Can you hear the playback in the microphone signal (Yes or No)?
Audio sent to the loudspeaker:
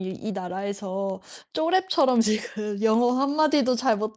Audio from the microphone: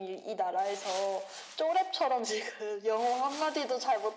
Yes